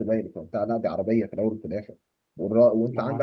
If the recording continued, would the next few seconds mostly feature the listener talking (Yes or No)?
No